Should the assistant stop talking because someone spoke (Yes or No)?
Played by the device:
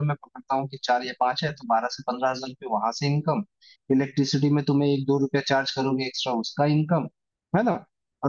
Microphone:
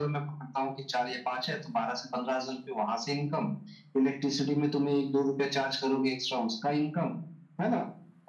No